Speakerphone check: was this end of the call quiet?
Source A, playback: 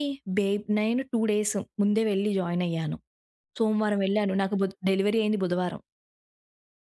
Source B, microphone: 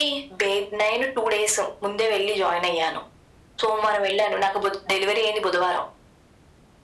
Yes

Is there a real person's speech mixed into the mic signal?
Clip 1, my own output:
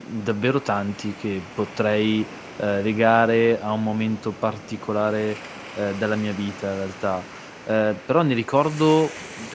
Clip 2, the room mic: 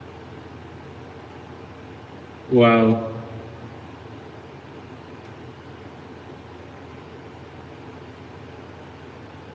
Yes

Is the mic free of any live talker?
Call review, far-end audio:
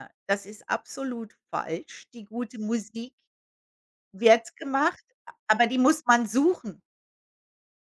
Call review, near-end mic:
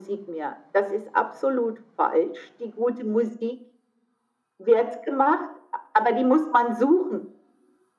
Yes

